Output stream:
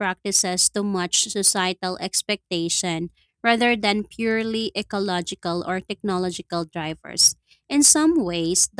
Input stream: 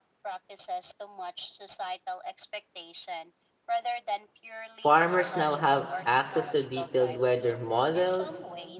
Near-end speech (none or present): present